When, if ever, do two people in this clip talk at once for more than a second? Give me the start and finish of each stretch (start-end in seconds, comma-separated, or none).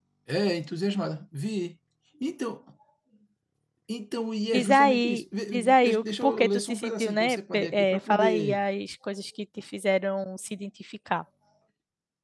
4.4-8.6